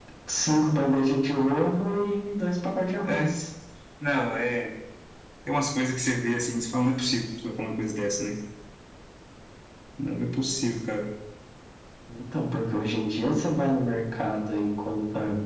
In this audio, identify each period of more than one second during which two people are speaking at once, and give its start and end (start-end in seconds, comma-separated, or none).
none